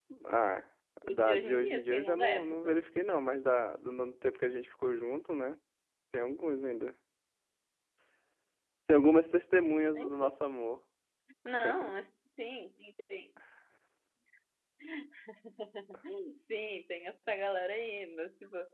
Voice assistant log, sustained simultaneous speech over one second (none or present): present